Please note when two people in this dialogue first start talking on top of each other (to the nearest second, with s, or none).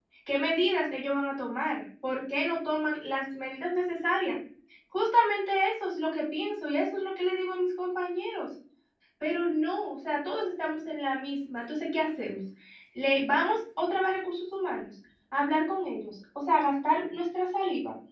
none